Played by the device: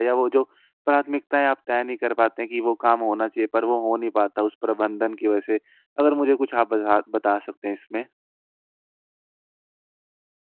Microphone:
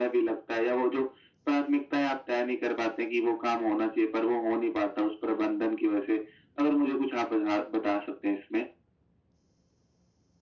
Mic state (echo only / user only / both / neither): echo only